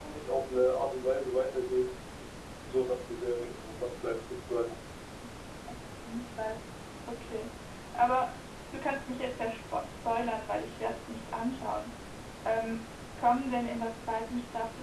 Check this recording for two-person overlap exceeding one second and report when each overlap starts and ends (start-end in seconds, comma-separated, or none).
none